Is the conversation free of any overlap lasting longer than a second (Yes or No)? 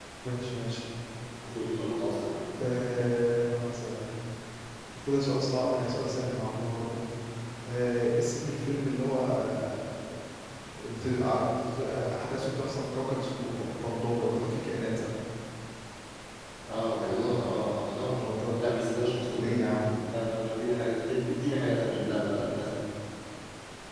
Yes